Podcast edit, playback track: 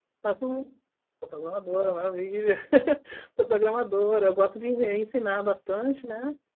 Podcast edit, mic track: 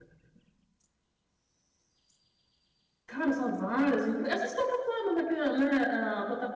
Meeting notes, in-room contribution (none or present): present